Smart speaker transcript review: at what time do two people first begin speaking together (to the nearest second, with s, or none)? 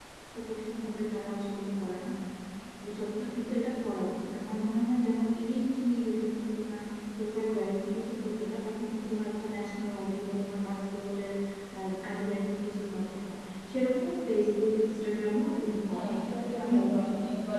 16 s